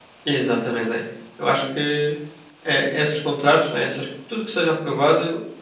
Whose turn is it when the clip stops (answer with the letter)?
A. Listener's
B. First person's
B